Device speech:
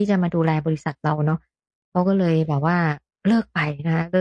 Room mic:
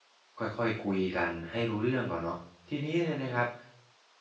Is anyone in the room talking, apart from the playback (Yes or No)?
Yes